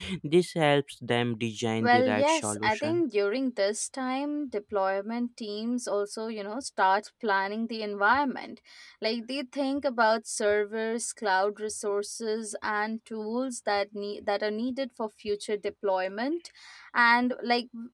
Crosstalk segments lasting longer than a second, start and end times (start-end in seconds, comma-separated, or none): 1.8-3.0